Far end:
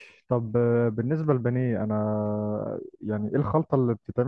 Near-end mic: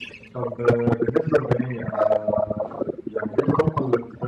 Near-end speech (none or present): none